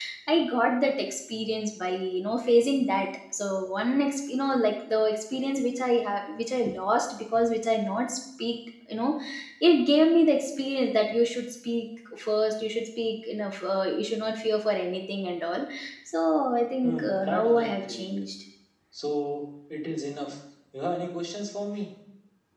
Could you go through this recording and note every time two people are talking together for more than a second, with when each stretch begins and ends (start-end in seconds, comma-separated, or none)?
16.8-18.2